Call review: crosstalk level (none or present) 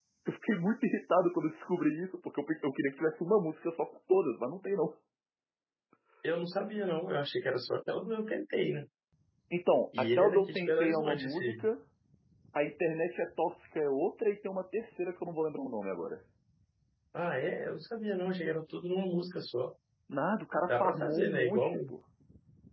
present